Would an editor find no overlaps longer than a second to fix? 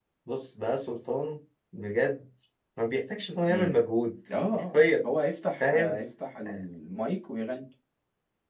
Yes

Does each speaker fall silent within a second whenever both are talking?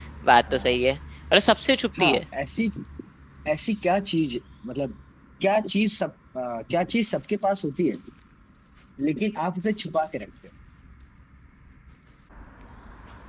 Yes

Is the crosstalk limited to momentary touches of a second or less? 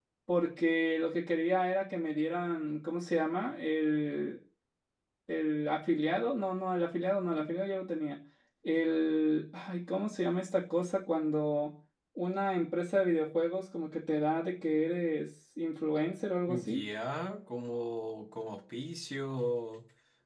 Yes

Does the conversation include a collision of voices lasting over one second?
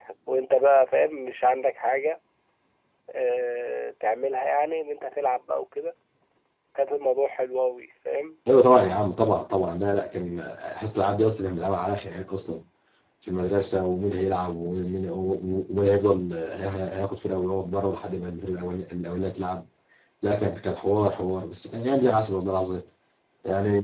No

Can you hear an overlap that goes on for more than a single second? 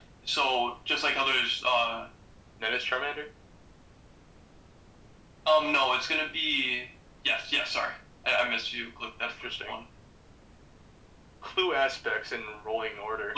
No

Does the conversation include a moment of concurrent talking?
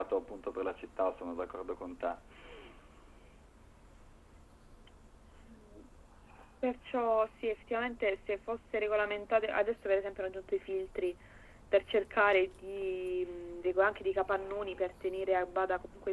No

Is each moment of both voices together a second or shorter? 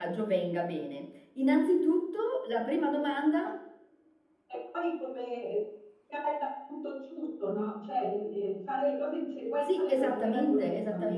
No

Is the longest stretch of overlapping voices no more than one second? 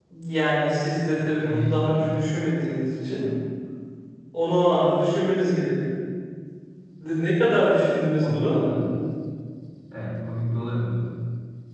No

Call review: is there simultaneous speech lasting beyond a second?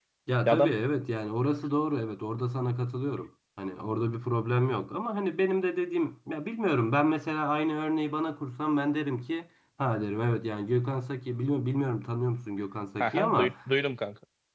No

